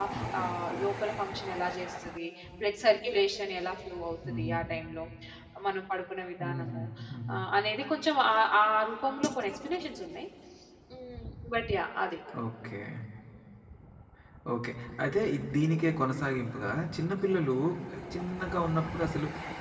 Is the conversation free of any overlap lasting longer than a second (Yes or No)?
Yes